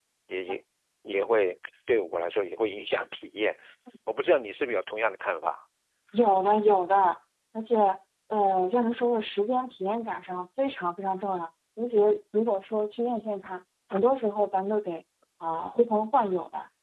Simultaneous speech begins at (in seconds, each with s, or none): none